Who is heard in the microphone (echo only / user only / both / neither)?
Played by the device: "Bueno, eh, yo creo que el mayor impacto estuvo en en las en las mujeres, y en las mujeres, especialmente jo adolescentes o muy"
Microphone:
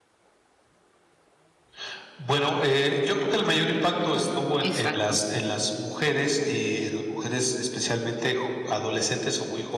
both